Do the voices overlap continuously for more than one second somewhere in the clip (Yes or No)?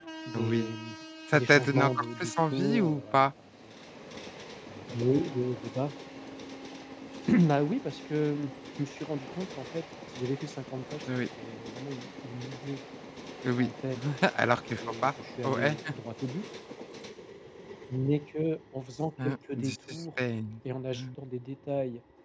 Yes